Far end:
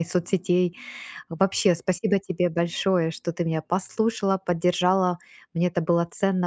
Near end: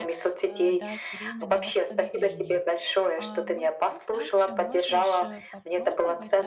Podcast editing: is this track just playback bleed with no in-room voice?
No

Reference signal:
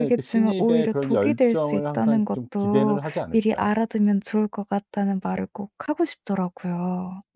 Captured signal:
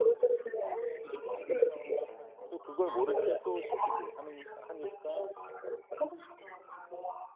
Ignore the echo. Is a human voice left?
Yes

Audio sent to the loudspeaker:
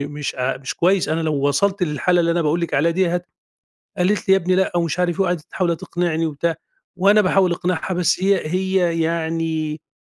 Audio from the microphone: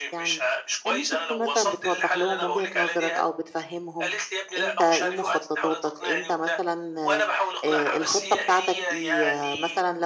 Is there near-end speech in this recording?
Yes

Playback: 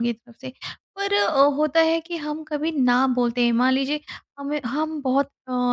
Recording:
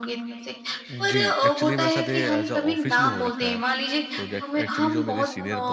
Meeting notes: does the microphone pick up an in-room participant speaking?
Yes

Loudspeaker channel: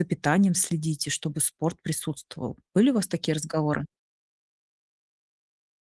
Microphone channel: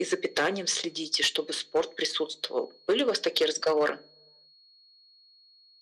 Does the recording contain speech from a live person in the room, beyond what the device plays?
No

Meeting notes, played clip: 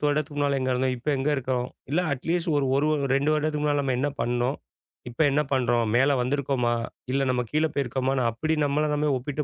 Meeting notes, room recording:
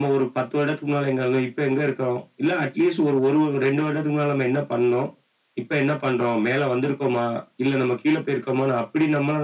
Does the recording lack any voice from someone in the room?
Yes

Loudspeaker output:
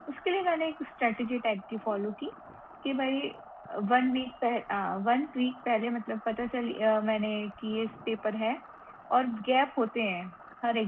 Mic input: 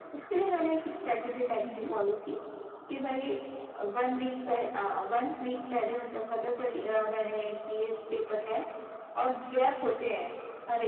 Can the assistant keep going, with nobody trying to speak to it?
No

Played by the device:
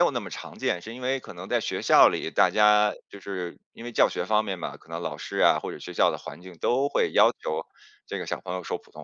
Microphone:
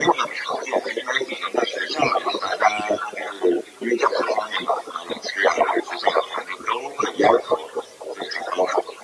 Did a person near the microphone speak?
No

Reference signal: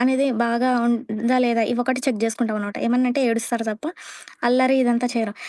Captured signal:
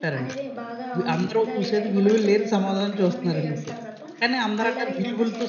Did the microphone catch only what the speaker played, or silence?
No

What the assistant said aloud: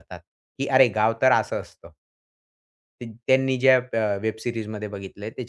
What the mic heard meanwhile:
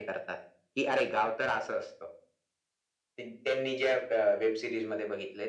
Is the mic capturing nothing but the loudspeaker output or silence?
Yes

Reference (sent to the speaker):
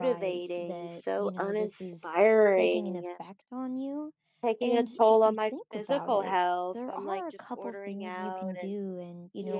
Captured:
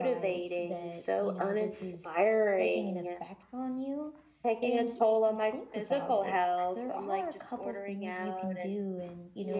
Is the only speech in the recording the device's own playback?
Yes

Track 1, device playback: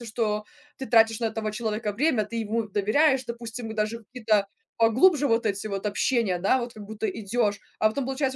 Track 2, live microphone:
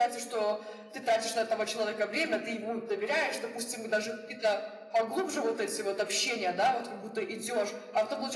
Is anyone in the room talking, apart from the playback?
No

